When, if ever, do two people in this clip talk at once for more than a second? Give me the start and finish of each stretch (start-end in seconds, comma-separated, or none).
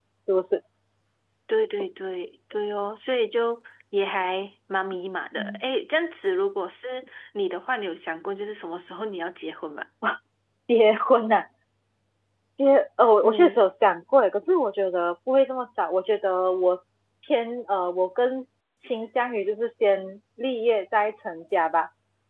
none